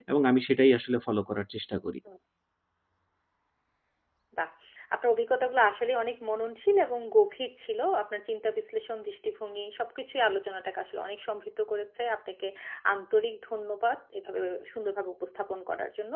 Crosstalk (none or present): none